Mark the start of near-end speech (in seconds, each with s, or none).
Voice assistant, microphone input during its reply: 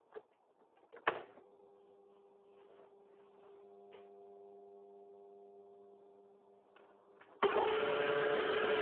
none